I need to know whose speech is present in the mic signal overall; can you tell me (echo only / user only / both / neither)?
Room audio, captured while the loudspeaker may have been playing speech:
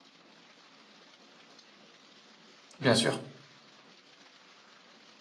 user only